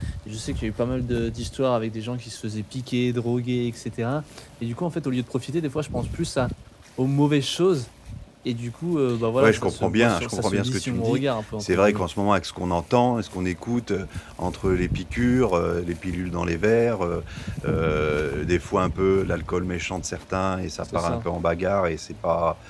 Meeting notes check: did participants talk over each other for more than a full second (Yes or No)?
Yes